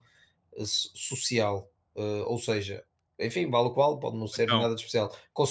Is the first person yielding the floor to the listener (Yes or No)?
No